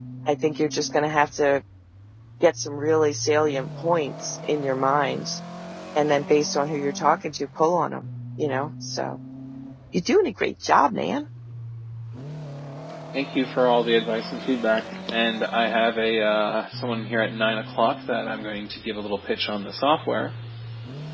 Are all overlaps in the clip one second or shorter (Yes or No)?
Yes